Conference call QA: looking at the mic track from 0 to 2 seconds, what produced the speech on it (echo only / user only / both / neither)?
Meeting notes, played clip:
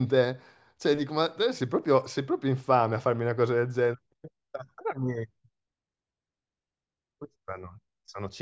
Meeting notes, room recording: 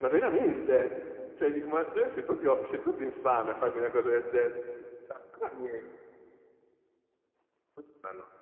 echo only